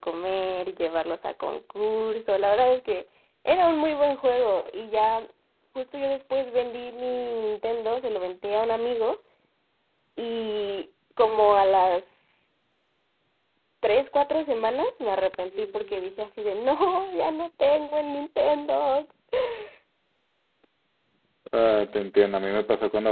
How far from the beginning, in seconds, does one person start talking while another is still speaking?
none

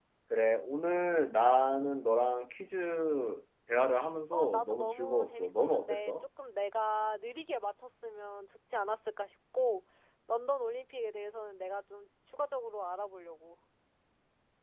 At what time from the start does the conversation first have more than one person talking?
4.3 s

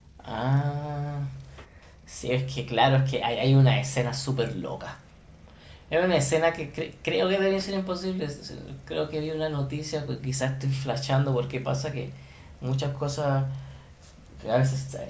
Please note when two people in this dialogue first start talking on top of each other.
none

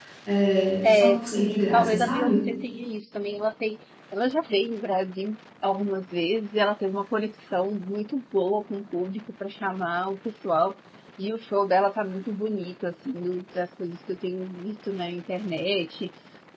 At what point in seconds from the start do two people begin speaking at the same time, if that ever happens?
0.8 s

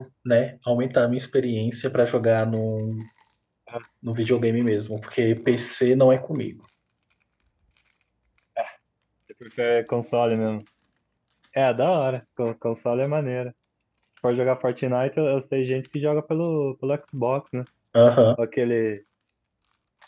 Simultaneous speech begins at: none

